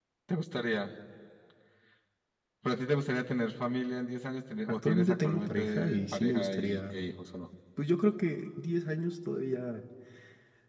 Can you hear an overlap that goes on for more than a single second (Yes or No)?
Yes